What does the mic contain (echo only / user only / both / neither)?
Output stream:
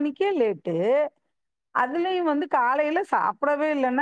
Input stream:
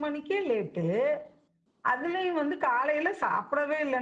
echo only